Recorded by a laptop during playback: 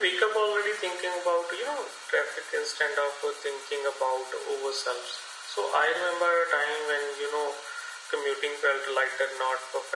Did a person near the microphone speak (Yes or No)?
No